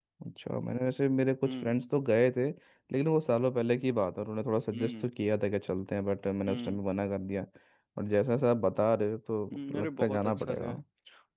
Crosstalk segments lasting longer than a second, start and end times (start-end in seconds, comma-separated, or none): 9.5-10.8